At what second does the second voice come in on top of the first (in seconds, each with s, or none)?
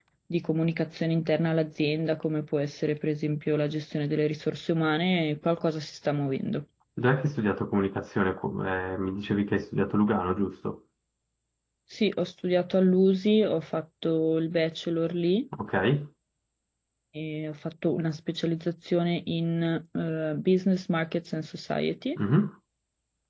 none